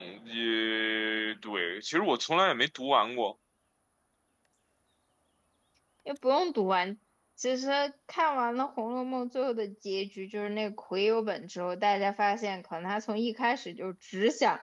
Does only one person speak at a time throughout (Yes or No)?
Yes